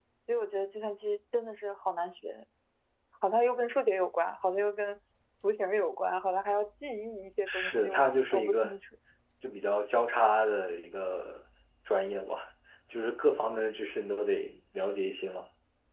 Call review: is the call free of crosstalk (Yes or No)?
No